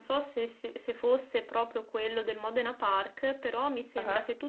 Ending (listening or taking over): listening